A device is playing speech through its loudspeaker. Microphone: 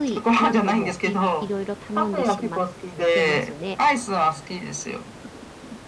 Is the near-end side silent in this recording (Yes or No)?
No